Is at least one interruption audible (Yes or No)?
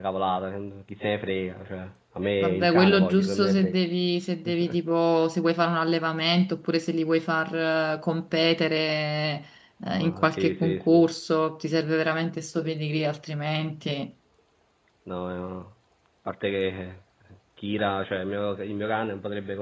Yes